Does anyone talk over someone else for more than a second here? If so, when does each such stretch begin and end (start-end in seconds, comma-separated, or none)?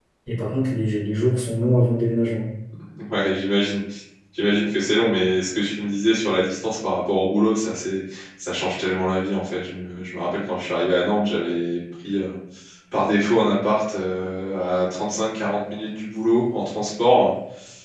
none